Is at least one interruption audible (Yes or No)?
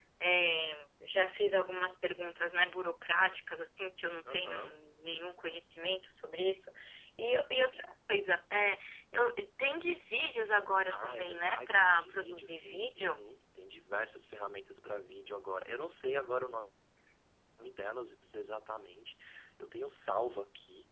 Yes